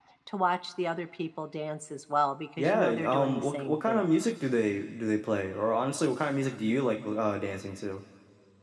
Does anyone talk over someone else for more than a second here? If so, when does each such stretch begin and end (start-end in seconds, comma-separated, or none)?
2.6-4.1